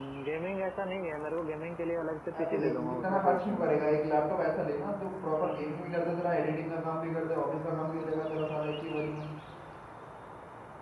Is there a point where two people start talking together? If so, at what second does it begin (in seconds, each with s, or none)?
2.3 s